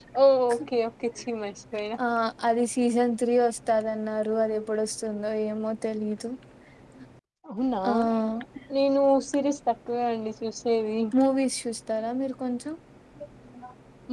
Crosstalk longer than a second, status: none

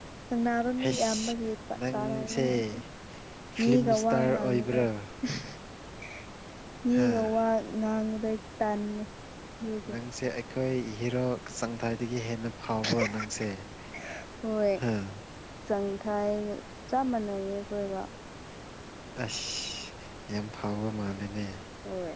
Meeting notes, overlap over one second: present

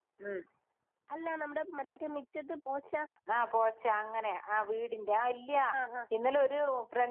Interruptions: none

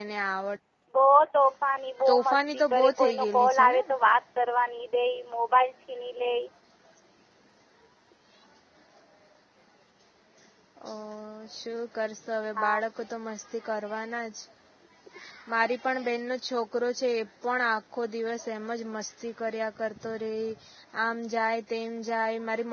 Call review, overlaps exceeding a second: present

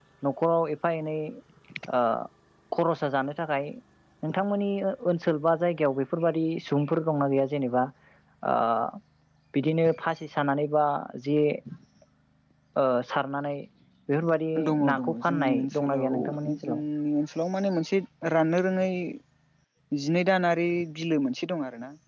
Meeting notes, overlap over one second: present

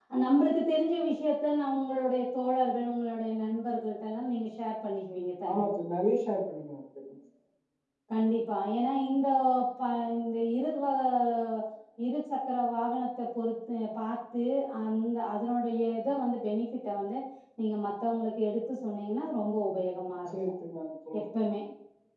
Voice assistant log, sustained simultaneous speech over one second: none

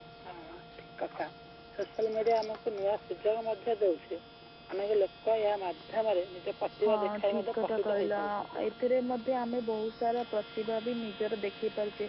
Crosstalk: present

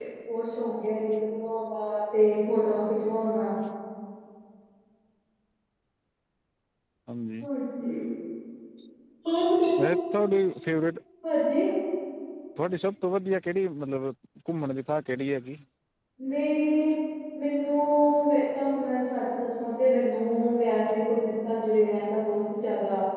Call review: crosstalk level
none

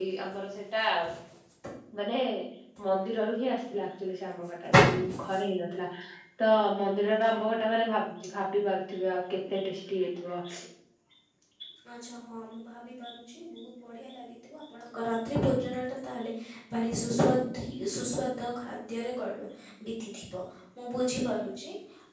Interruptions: none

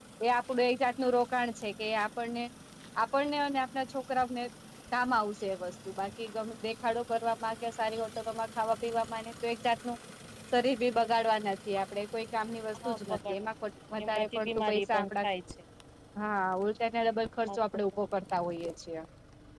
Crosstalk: present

